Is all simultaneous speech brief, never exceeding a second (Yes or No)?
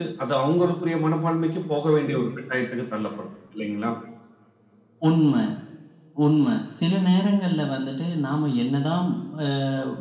Yes